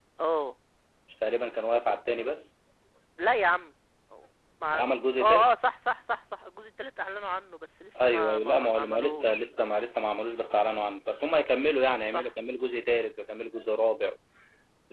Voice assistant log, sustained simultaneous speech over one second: present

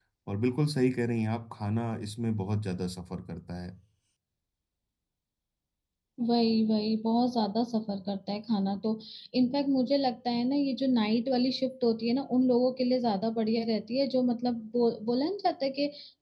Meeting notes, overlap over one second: none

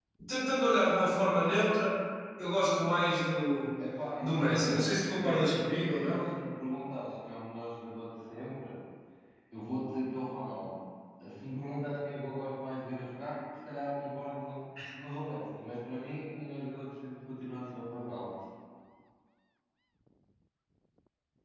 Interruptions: present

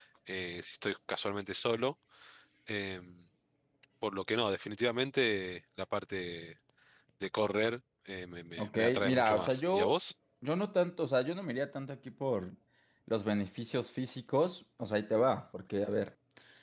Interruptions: present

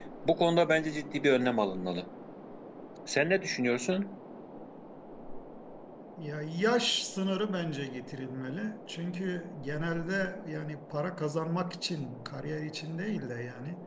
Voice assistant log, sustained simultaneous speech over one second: none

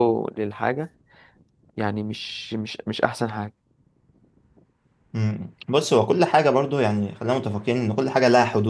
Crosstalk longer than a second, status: none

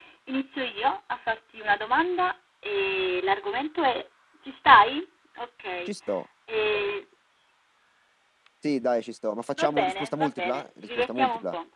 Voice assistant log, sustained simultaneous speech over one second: present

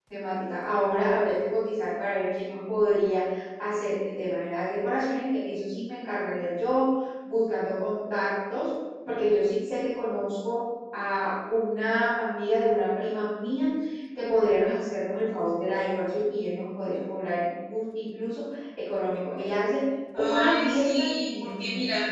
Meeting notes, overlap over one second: present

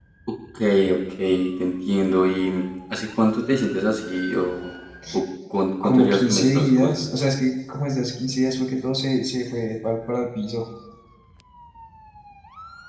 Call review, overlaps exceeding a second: present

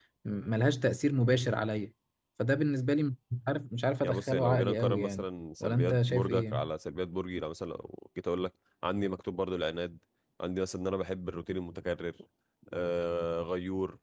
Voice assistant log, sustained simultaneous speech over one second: present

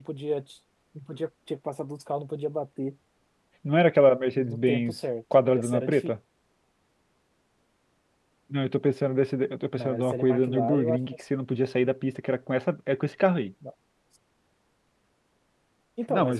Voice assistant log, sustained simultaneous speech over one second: present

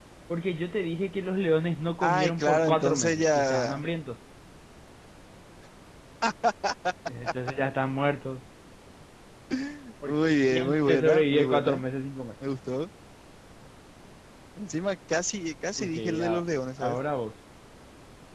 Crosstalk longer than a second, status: present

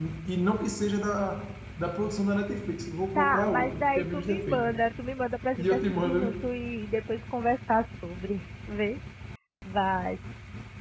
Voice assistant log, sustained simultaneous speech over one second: present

